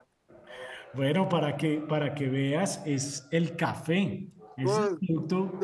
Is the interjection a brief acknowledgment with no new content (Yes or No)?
No